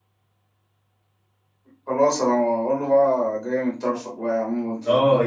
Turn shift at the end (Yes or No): Yes